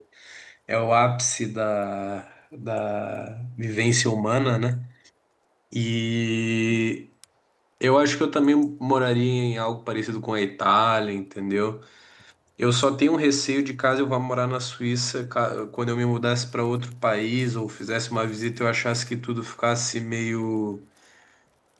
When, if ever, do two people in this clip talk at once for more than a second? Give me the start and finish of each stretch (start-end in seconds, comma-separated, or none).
none